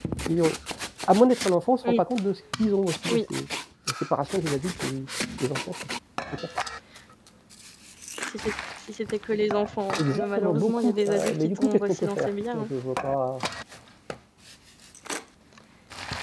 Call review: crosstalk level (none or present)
present